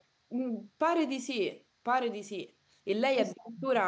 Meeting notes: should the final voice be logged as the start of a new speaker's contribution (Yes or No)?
No